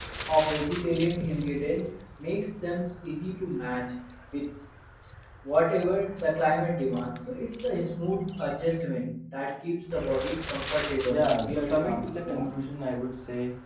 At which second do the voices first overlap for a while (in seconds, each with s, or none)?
11.0 s